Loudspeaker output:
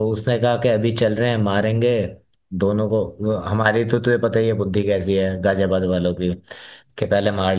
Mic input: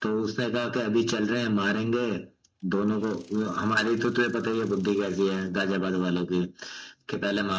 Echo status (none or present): present